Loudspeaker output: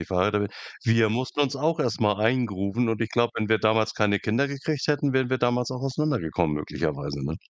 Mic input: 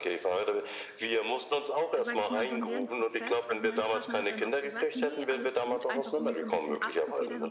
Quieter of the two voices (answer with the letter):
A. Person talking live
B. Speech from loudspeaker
A